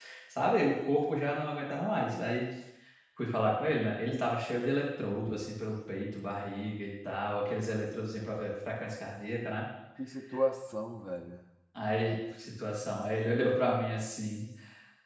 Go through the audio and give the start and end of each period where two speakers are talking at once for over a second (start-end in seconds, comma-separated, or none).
none